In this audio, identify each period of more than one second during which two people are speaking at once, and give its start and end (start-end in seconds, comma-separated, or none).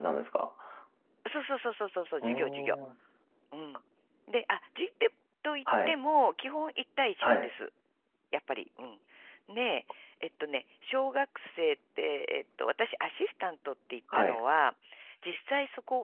none